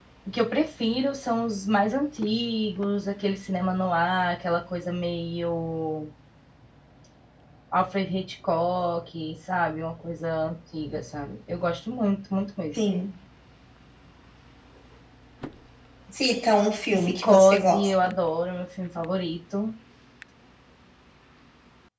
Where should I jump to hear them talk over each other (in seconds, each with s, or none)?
16.9 s